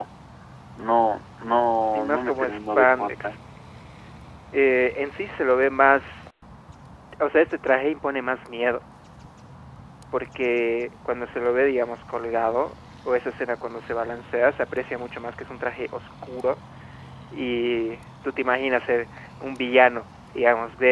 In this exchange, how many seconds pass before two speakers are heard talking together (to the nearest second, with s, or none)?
2 s